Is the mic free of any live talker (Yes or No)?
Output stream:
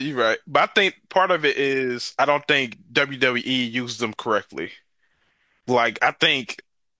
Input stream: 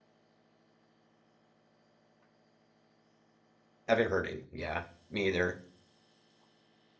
No